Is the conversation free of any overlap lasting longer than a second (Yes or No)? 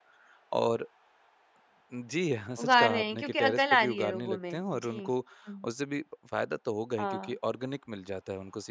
No